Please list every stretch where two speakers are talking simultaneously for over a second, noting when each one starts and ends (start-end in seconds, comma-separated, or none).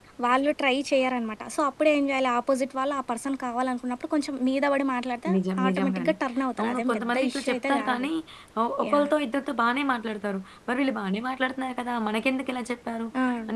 6.6-8.1